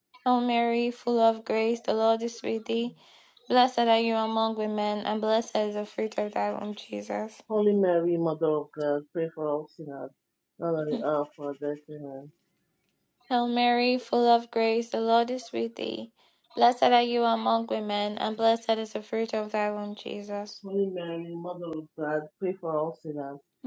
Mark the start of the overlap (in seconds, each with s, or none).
none